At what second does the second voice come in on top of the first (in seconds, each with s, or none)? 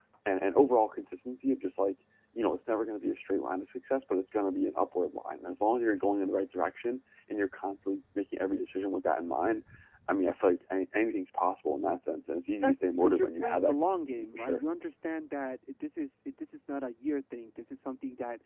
12.5 s